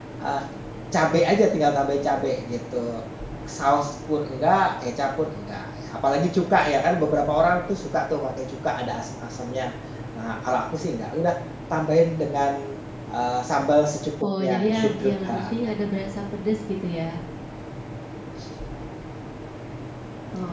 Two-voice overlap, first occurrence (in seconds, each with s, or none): 14.2 s